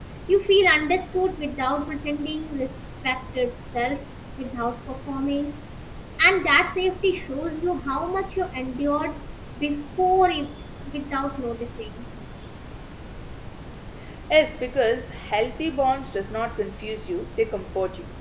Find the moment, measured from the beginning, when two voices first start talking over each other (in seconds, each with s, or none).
none